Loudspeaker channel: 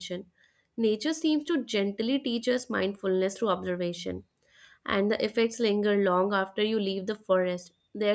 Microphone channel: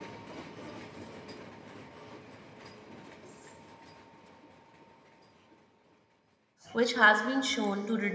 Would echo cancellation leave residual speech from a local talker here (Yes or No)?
Yes